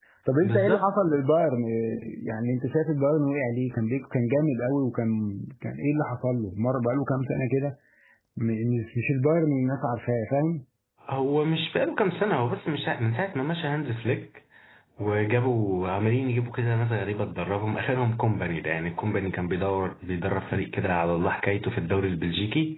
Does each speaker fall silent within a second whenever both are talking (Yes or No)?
Yes